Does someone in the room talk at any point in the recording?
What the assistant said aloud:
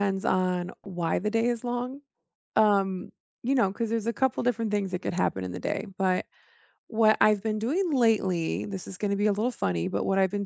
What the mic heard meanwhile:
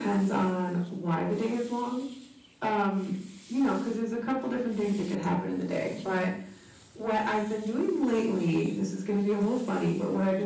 No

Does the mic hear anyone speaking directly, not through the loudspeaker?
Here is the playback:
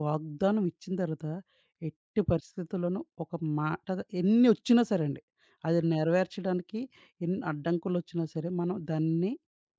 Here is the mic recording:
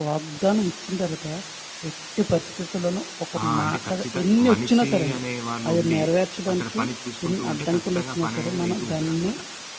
Yes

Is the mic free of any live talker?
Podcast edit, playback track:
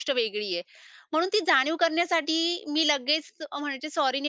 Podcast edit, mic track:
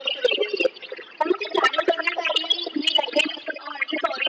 Yes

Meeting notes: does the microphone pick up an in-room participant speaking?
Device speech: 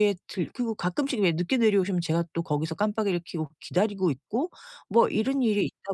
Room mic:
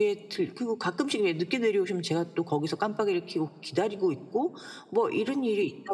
No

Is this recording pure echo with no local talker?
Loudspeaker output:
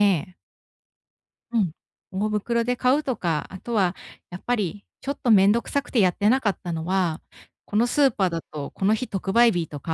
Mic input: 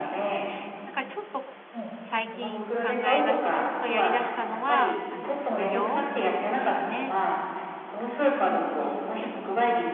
No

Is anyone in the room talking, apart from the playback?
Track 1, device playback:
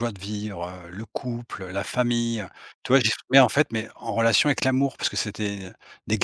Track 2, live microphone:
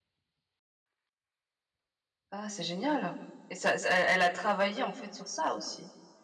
Yes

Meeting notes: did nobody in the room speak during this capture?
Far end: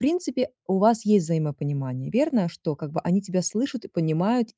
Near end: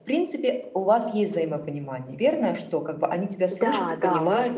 No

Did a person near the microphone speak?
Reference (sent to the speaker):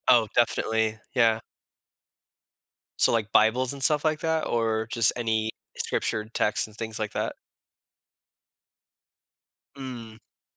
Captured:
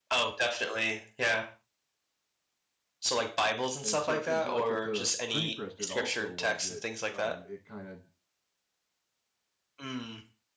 Yes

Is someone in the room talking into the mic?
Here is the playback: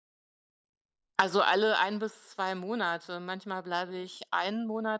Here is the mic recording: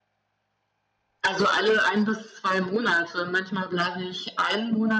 No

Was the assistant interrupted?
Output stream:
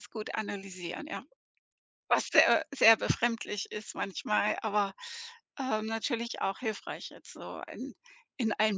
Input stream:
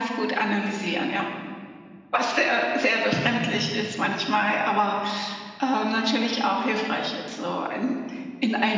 No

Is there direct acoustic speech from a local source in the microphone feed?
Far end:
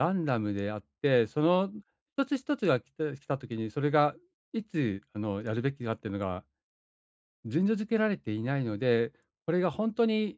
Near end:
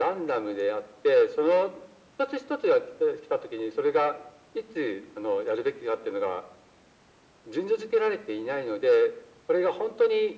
No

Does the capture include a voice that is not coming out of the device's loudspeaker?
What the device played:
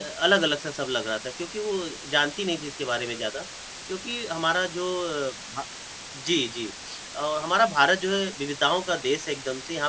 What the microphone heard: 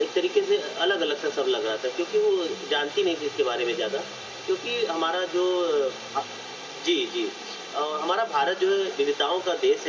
No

